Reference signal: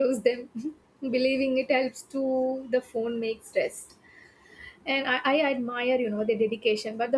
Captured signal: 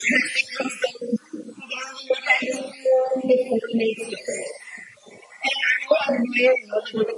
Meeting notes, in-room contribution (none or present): none